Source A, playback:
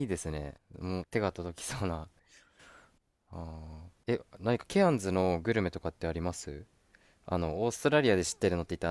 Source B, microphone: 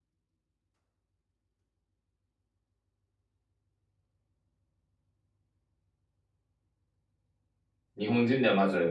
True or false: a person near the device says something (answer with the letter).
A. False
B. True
B